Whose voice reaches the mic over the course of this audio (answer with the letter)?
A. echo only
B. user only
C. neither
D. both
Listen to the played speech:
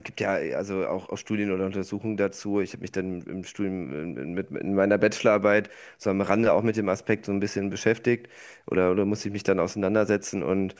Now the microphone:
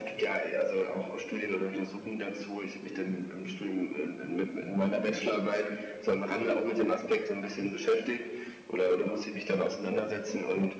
A